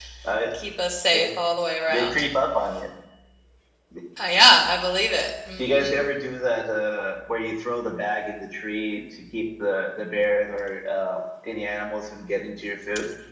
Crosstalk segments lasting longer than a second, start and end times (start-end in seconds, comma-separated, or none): none